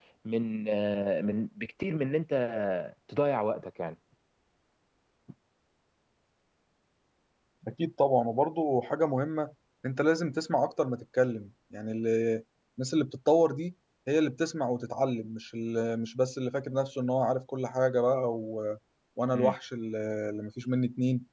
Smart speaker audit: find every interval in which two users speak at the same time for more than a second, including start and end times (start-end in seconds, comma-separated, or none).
none